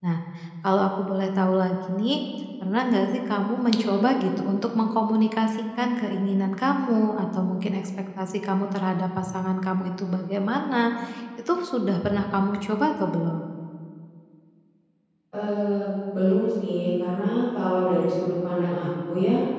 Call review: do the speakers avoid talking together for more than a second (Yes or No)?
Yes